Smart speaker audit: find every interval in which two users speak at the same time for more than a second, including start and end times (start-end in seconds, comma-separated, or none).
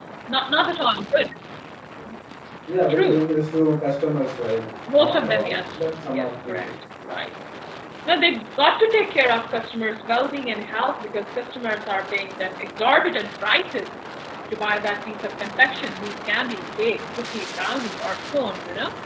5.0-6.7